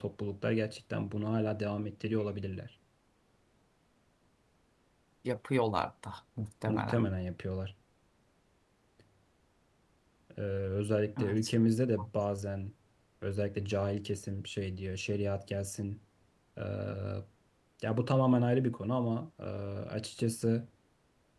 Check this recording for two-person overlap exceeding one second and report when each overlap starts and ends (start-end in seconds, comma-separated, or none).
none